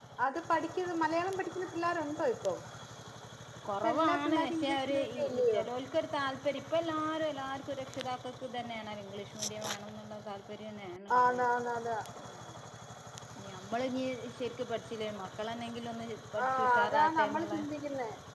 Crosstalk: present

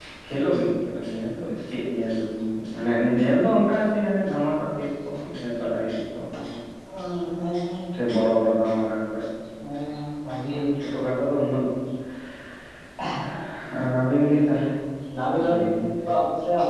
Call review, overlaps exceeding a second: none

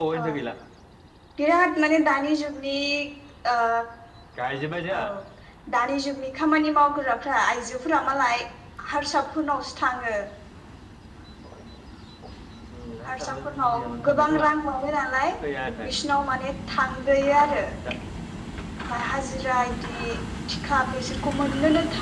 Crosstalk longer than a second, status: present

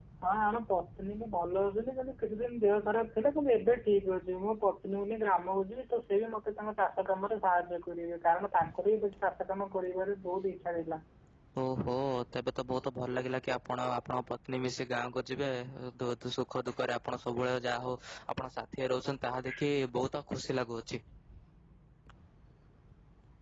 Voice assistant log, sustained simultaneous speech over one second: none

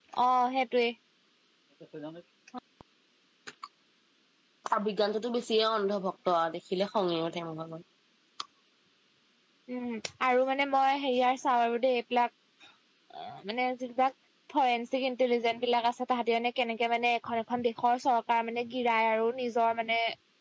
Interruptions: none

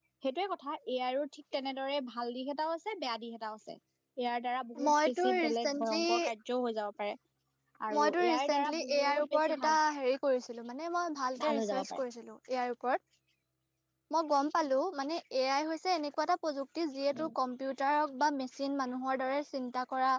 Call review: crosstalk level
present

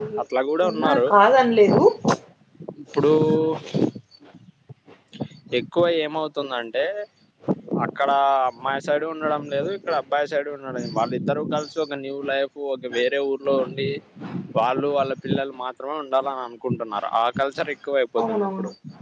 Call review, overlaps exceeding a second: none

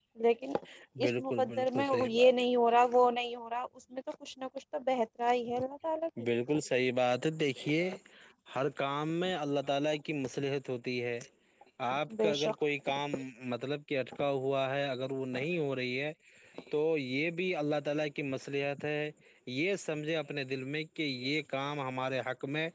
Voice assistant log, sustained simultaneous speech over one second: present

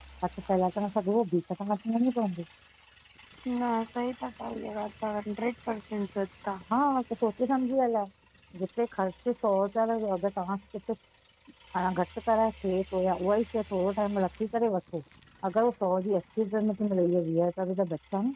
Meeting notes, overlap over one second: none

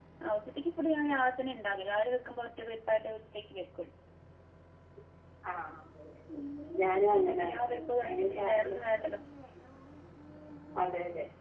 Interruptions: present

